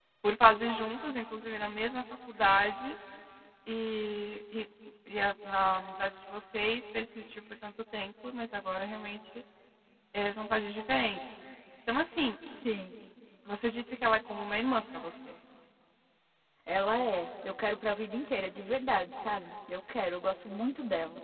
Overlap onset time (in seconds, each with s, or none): none